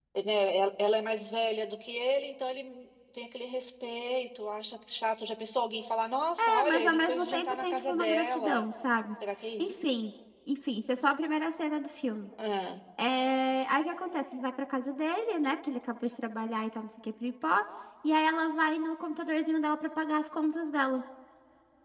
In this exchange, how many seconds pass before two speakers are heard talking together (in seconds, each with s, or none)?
6.4 s